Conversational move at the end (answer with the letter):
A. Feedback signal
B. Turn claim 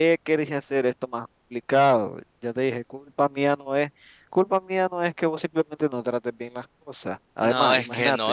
B